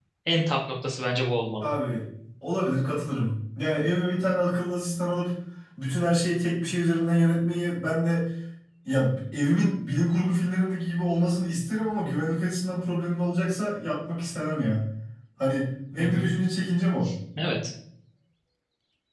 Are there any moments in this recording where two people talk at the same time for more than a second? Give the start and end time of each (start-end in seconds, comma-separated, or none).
none